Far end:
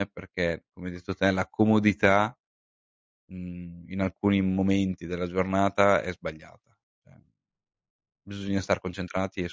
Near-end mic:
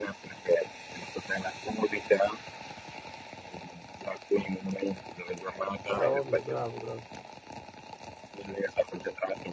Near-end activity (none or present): present